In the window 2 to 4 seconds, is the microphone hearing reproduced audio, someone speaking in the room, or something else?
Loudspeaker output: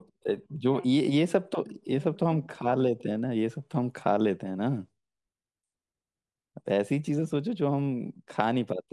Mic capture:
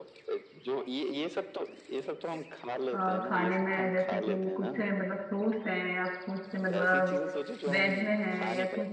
both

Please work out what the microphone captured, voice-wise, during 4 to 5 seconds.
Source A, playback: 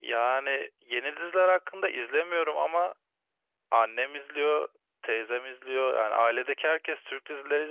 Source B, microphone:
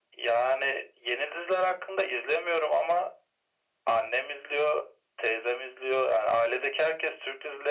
echo only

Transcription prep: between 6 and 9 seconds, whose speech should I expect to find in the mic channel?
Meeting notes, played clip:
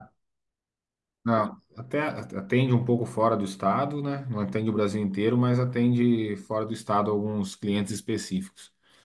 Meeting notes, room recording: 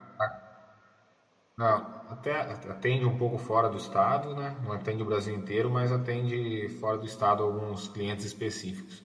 echo only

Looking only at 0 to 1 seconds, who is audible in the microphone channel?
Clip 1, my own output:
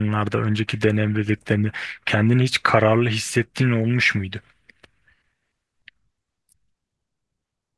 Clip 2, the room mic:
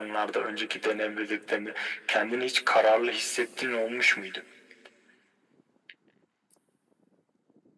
echo only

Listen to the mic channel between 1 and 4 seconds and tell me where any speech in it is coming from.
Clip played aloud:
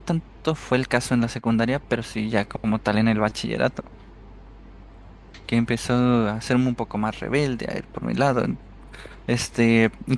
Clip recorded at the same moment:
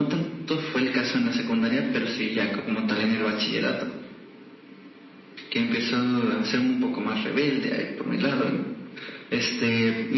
echo only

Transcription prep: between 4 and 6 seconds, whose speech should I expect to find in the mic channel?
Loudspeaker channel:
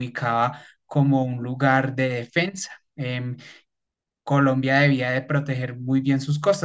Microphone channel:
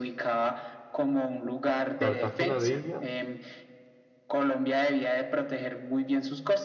echo only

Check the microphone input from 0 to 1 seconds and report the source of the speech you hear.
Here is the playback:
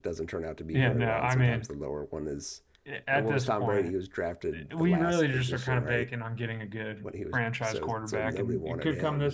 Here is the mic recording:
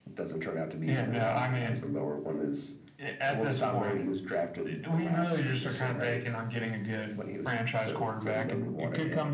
echo only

